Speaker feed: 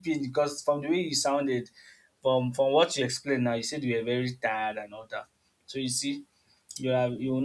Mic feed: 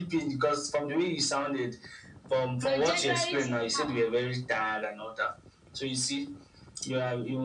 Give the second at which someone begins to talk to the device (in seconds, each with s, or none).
2.6 s